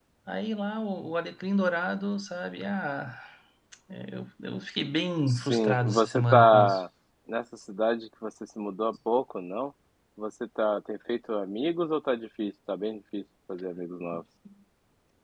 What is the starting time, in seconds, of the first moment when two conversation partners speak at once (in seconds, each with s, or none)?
5.3 s